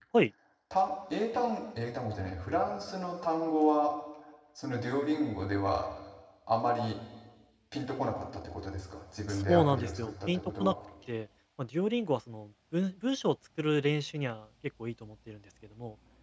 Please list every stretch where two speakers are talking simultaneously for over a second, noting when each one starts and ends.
9.3-10.7

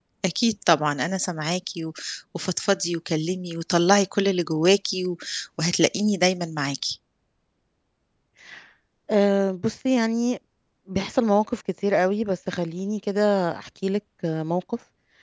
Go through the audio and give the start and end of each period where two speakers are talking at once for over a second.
none

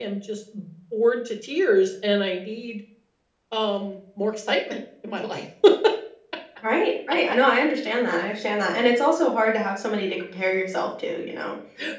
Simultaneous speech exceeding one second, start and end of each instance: none

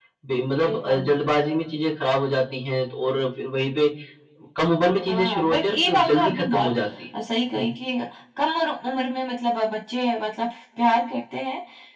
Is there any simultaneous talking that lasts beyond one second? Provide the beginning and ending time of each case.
5.1-6.7

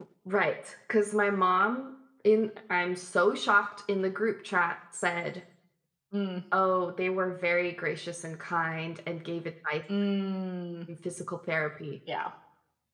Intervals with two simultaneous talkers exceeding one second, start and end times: none

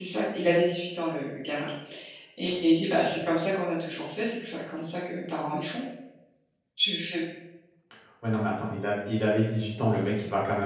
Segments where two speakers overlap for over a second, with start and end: none

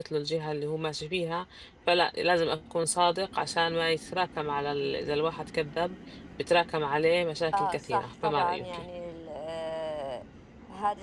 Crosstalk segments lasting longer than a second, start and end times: 7.5-8.8

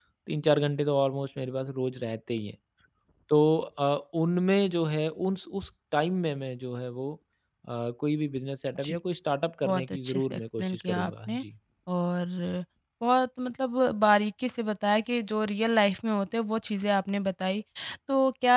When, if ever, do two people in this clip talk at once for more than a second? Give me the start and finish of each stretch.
9.6-11.4

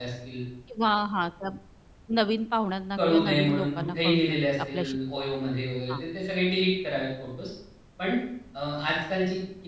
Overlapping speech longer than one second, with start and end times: 3.0-5.0

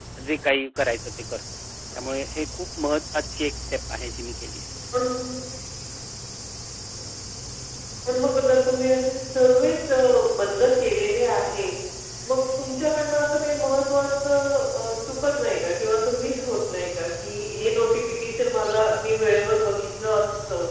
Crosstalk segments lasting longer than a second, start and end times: none

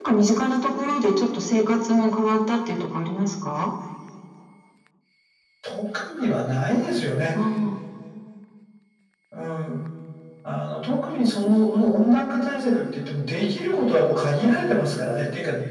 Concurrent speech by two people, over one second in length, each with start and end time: none

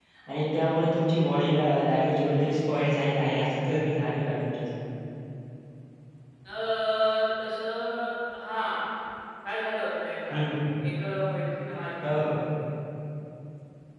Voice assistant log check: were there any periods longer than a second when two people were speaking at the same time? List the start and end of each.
none

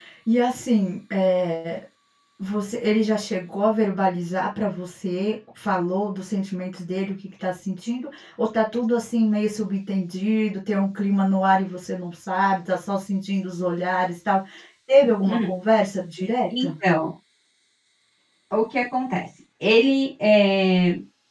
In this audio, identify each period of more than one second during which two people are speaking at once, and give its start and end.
none

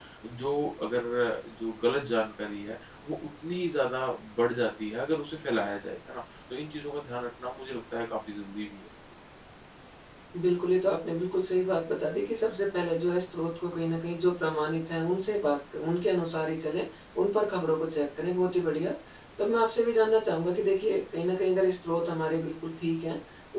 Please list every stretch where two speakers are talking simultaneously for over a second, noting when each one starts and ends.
none

